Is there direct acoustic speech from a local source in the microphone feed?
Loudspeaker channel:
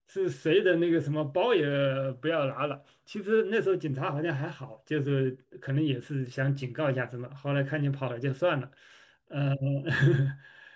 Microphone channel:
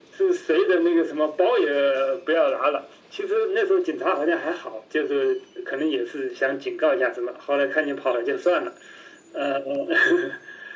No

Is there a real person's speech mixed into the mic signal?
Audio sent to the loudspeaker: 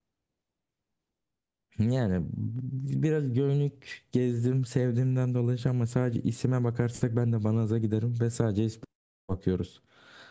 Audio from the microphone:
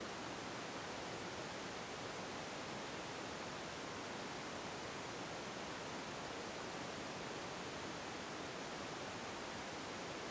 No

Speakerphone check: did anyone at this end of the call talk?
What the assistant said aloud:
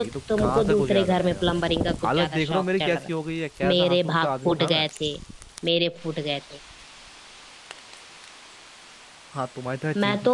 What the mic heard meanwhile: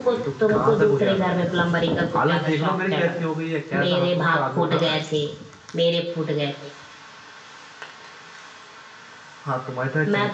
No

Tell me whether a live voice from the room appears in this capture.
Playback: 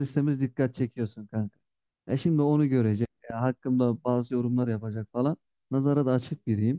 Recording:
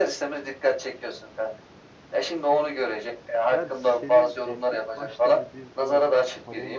Yes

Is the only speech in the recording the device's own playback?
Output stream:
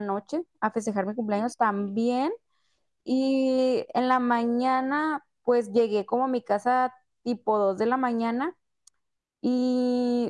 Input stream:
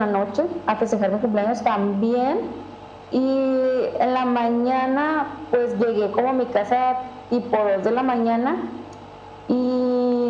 Yes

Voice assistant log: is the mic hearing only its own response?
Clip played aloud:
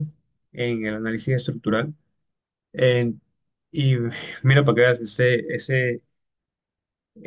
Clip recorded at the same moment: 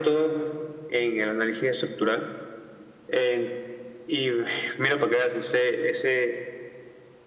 Yes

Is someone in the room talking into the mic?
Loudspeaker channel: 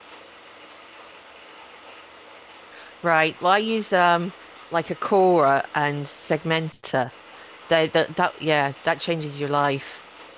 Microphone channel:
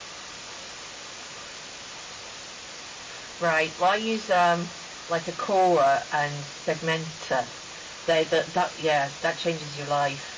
No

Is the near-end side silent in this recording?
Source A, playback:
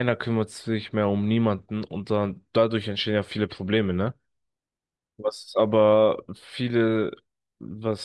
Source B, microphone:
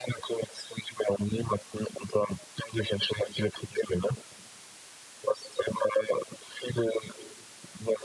Yes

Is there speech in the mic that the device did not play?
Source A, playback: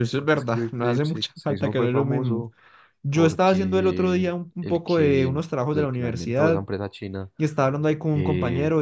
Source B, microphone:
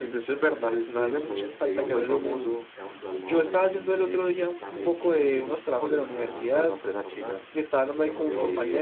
Yes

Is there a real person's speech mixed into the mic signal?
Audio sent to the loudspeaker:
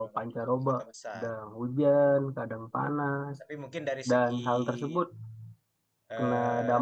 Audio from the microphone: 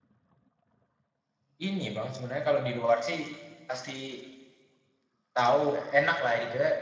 Yes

